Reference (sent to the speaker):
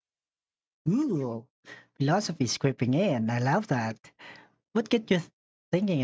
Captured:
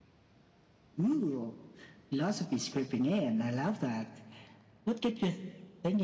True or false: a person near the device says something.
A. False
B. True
A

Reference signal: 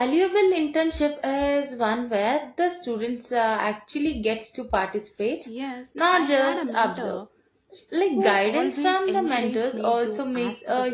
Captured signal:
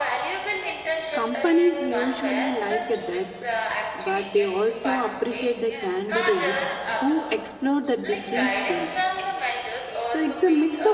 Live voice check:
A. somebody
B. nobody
A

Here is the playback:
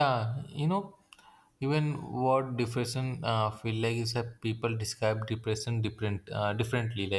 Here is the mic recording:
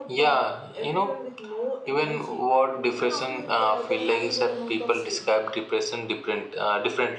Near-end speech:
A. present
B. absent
A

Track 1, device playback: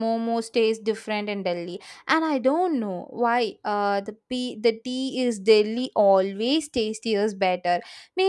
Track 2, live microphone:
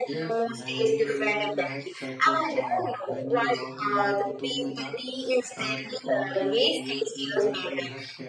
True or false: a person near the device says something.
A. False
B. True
B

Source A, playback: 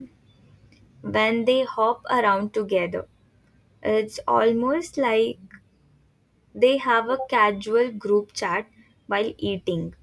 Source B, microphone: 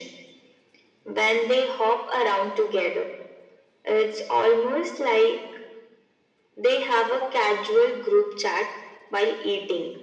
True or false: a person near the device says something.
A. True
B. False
B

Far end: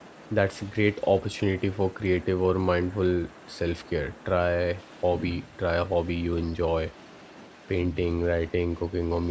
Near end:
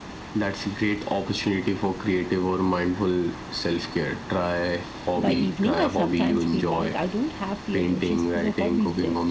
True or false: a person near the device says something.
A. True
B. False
A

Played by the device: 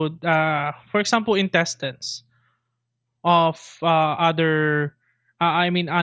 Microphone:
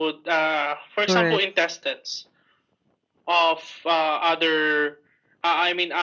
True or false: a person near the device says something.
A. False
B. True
B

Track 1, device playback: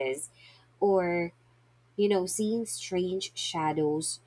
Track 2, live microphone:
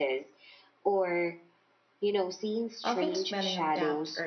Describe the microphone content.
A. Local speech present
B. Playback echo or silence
A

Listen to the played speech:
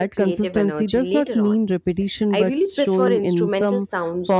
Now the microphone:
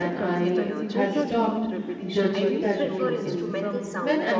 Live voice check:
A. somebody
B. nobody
A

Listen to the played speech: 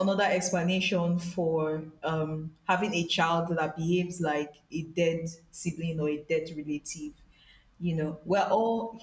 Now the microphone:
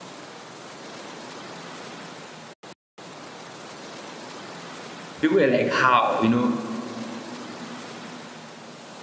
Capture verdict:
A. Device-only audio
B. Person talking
B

